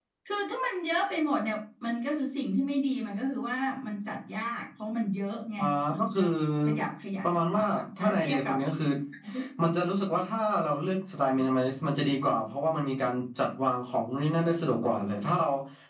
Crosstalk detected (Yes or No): Yes